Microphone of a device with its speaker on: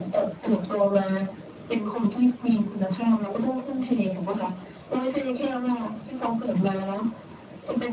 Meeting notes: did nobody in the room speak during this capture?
Yes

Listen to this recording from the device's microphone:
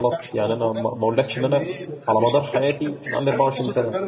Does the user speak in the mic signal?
Yes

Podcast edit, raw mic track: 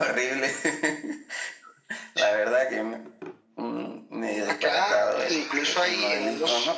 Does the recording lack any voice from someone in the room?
Yes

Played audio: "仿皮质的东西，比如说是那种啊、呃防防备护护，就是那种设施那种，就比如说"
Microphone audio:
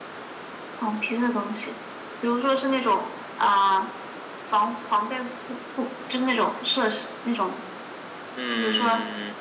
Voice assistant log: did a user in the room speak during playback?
Yes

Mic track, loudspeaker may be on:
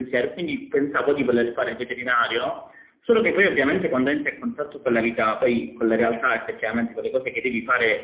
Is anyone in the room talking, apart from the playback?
No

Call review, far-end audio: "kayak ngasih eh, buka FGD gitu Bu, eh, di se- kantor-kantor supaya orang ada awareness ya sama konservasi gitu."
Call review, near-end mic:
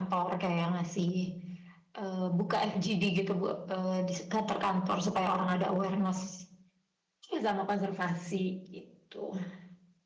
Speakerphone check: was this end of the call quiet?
Yes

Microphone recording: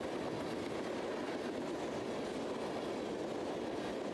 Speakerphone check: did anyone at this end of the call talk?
No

